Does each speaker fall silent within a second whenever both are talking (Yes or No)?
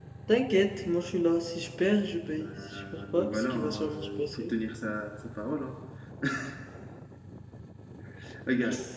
No